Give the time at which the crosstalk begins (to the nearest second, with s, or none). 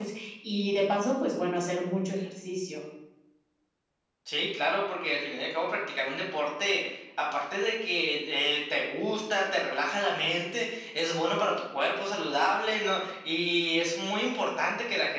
none